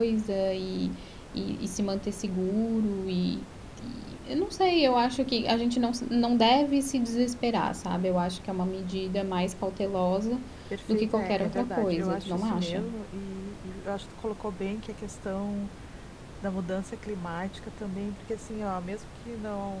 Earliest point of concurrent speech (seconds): 10.9 s

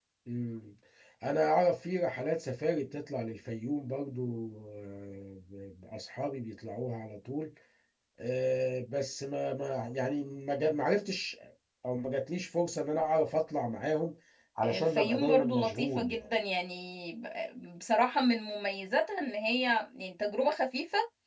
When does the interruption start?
14.6 s

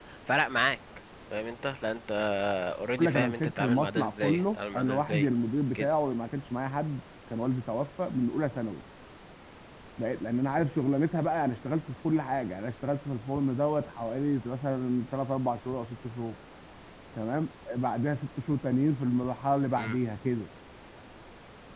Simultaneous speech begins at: 3.0 s

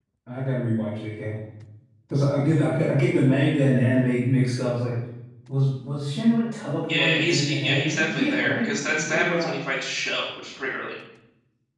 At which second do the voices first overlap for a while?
6.9 s

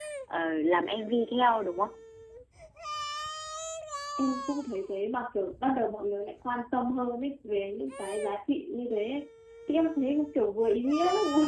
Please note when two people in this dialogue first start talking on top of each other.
none

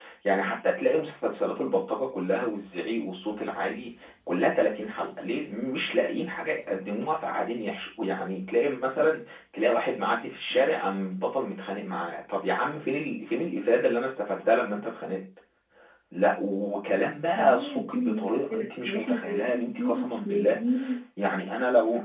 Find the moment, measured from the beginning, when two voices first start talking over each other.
17.4 s

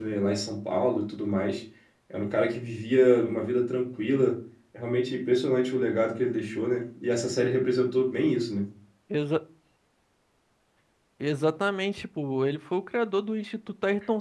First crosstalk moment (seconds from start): none

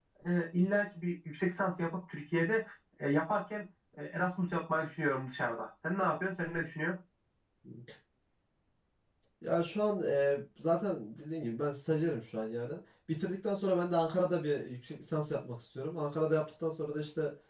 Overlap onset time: none

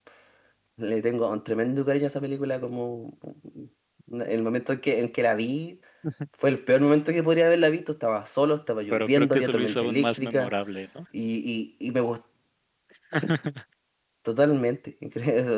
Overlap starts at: 8.9 s

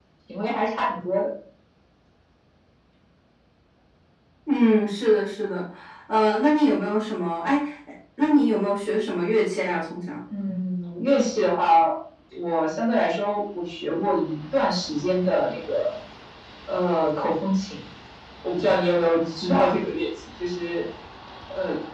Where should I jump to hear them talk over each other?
none

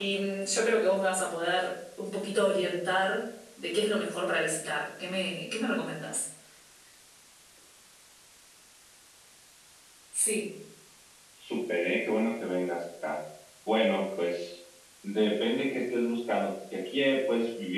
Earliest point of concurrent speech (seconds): none

